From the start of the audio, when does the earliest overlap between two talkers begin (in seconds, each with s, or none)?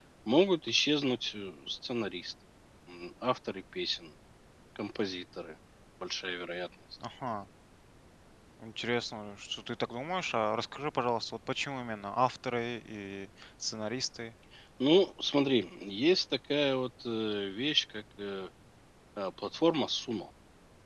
none